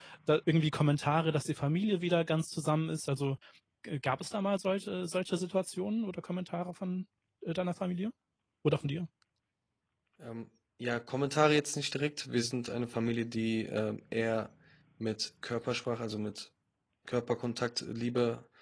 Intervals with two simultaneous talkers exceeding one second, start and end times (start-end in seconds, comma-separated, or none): none